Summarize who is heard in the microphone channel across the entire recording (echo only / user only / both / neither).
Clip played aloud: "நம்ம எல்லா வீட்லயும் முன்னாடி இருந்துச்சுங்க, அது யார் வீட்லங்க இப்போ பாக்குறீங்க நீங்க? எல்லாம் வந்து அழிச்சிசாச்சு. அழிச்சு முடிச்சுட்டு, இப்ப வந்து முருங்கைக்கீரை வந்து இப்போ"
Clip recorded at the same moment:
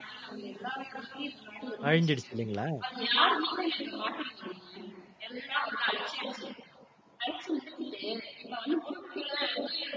both